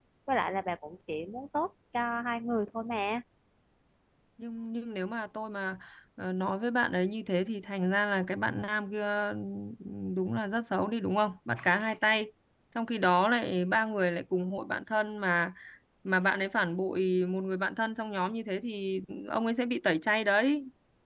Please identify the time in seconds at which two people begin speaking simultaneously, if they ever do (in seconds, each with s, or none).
none